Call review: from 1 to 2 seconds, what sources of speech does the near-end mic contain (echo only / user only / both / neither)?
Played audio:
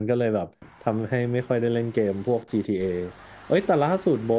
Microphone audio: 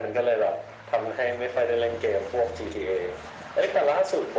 echo only